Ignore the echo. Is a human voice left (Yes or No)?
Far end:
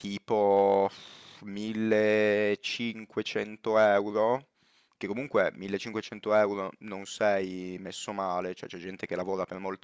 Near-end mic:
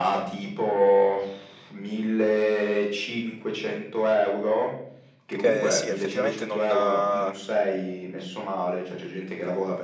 Yes